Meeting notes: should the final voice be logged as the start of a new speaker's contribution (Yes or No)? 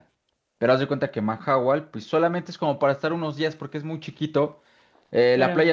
No